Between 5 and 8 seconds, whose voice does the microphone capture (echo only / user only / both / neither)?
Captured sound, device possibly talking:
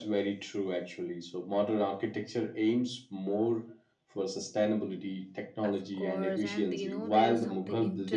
both